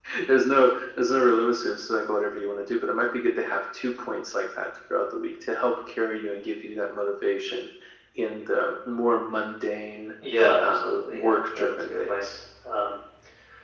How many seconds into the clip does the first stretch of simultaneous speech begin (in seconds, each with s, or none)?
10.6 s